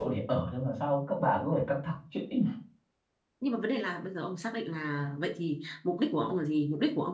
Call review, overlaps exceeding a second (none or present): none